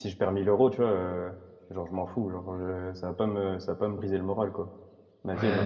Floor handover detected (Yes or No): Yes